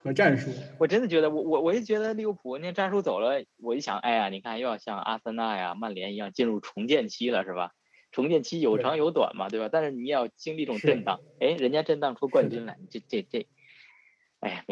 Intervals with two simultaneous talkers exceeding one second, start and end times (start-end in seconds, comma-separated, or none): none